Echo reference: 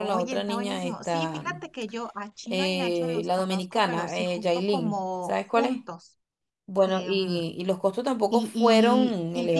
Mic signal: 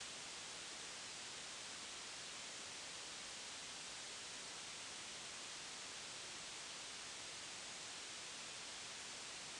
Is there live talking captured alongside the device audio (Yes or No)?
No